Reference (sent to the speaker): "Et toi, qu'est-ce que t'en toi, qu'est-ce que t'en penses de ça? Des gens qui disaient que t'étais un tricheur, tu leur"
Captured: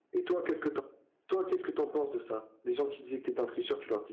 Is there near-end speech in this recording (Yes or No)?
No